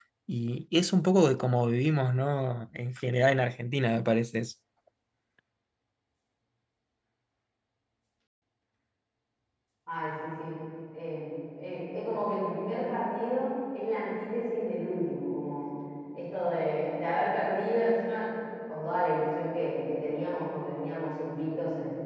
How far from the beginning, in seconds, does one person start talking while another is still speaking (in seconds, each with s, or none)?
none